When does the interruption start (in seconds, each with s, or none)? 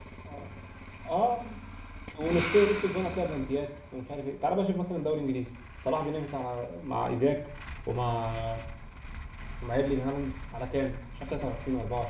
none